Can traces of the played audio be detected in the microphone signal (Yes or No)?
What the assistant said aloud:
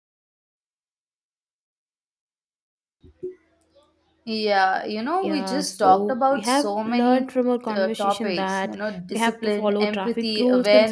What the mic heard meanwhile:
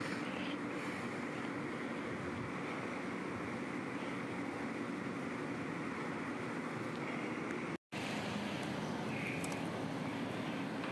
No